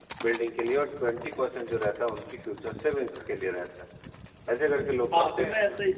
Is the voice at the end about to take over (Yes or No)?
Yes